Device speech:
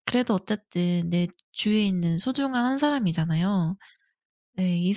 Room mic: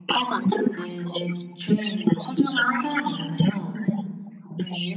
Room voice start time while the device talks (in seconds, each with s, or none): 3.6 s